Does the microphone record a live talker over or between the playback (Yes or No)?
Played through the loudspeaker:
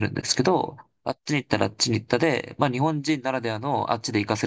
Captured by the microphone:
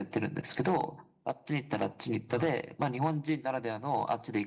Yes